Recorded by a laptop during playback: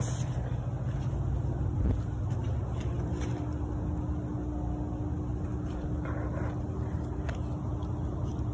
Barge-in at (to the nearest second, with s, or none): none